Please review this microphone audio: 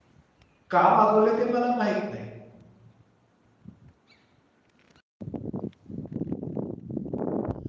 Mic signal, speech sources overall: user only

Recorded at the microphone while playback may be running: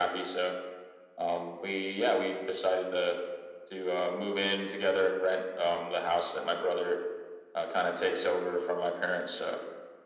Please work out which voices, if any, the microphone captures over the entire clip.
echo only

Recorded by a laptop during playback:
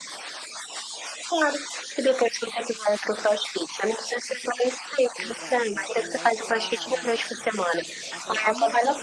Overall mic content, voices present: both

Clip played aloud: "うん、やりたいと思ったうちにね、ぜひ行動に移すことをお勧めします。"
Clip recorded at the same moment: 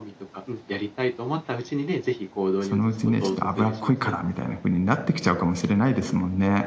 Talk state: both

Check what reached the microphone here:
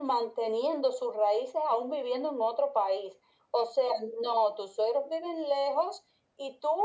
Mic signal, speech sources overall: echo only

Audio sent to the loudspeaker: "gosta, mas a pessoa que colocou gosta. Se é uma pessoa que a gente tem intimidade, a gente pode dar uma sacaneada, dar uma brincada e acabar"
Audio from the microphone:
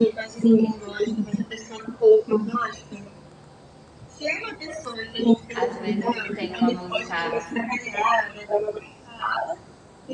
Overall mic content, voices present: both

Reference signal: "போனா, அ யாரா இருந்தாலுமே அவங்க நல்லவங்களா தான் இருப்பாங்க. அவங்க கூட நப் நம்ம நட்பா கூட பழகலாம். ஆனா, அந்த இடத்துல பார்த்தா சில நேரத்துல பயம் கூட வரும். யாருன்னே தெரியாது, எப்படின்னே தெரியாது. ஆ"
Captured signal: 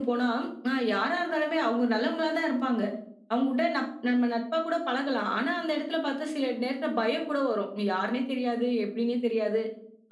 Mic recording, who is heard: echo only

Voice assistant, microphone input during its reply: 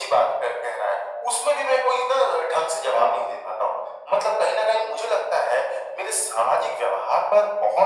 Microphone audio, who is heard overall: echo only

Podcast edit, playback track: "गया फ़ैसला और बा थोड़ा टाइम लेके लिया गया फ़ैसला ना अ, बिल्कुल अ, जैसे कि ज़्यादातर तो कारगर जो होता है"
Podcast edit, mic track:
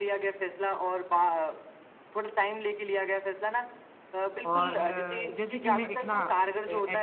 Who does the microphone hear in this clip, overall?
both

